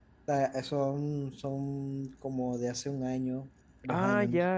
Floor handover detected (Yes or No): Yes